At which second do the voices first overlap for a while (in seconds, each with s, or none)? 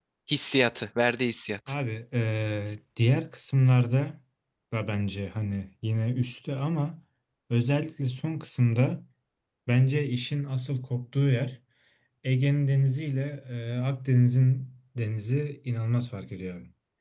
none